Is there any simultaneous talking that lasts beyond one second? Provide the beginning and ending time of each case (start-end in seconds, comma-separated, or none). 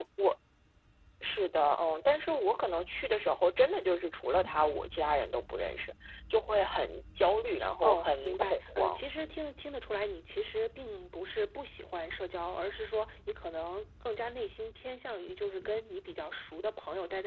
7.8-9.4